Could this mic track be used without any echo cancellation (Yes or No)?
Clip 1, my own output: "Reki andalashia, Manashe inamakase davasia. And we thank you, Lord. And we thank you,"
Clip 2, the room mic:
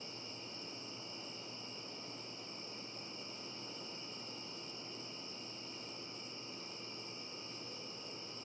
Yes